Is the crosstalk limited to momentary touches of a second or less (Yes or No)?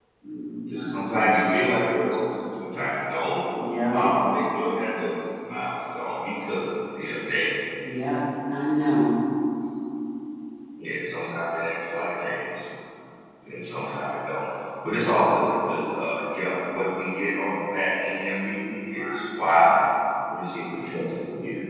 Yes